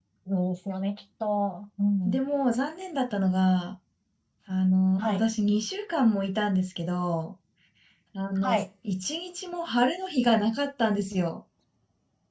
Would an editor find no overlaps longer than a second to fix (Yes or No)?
Yes